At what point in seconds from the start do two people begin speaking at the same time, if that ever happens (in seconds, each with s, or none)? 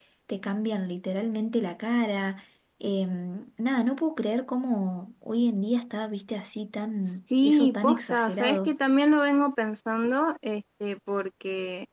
7.3 s